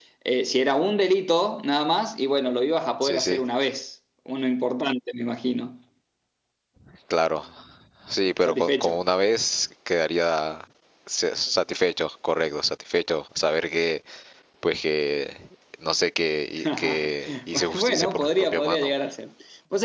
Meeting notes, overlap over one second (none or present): present